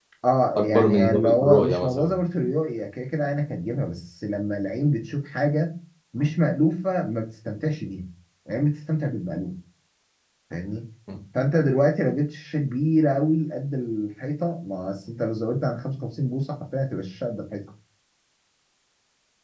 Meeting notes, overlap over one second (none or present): present